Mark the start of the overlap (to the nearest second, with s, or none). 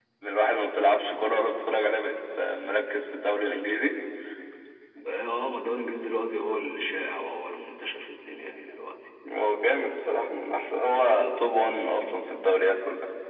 none